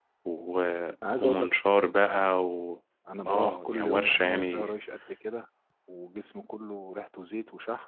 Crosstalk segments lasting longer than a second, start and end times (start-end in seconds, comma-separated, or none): 3.2-4.8